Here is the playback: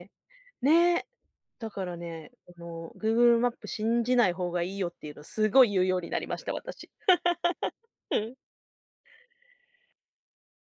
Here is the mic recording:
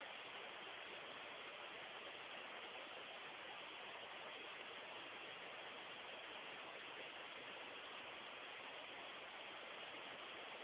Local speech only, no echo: none

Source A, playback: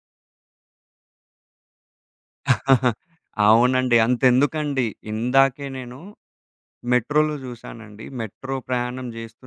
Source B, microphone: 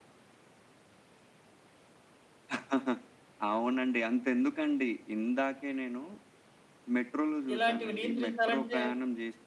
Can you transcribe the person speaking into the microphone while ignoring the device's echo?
ఇలాంటివి నియంత్రించాలంటే

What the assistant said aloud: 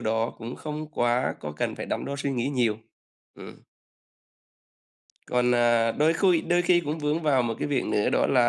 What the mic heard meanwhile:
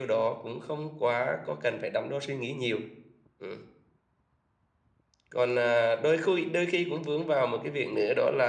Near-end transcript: none

